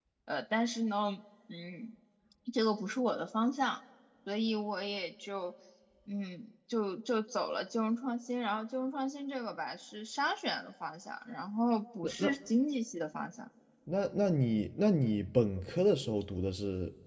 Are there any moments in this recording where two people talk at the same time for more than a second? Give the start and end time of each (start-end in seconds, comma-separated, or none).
none